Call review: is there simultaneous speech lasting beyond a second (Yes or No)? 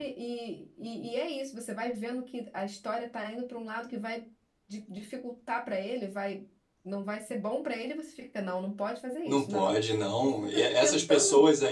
Yes